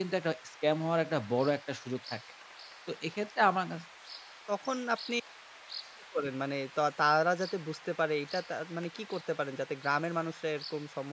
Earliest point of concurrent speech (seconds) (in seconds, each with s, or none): none